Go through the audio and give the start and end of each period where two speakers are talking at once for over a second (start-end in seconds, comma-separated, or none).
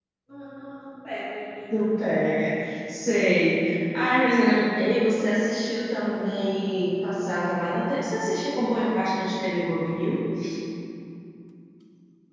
none